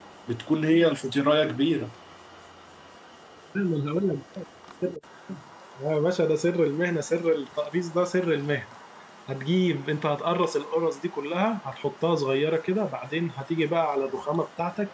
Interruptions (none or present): none